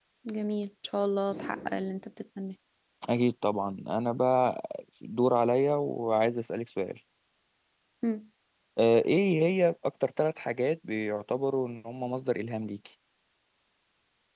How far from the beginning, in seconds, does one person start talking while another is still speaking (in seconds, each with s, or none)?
none